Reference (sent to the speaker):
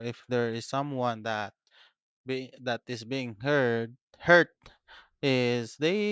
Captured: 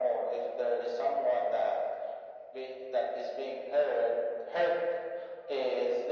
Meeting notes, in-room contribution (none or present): none